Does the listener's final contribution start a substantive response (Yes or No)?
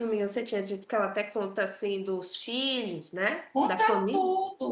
Yes